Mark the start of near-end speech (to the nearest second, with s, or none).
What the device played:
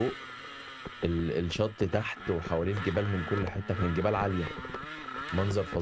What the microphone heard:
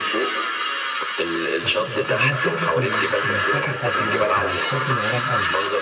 2 s